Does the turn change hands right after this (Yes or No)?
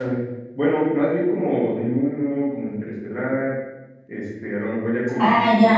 Yes